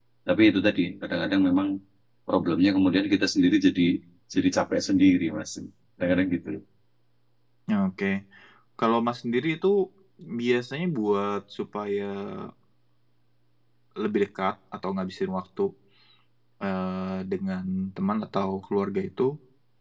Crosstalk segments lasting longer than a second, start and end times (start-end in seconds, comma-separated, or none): none